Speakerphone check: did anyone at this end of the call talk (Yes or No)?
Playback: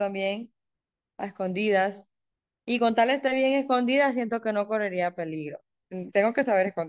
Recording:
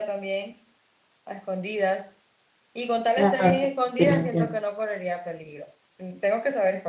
Yes